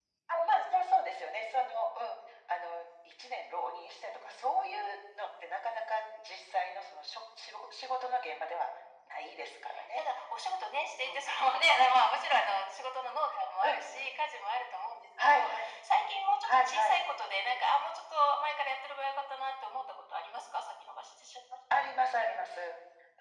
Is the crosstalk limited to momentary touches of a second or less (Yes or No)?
Yes